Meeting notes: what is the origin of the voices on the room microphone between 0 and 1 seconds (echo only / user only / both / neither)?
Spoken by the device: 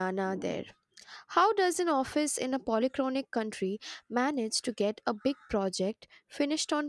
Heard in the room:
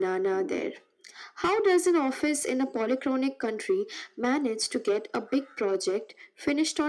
echo only